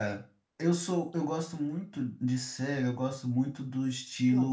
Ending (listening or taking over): listening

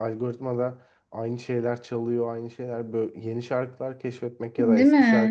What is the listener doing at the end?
listening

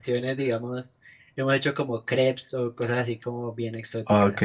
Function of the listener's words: taking over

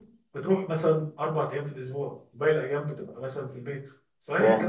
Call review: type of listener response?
taking over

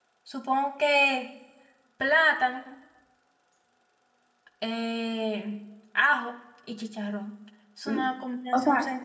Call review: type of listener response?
taking over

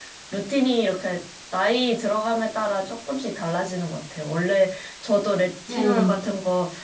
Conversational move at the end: listening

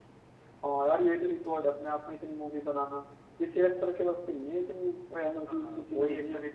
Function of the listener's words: taking over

